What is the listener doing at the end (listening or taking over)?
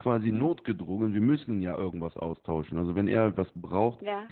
listening